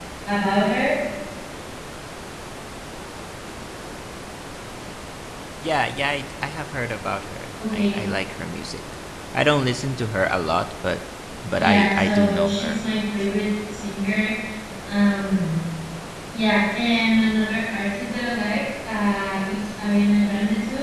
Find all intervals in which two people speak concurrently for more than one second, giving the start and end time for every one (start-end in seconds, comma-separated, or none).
11.6-12.8